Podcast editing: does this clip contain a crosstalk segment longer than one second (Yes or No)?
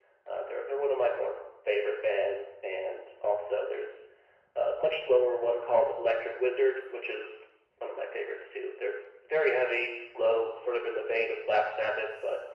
No